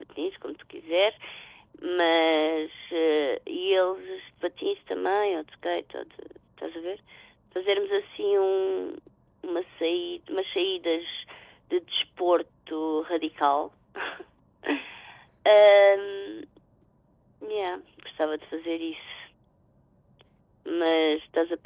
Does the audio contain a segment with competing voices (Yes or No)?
No